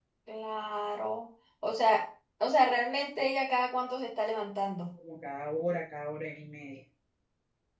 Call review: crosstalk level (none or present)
none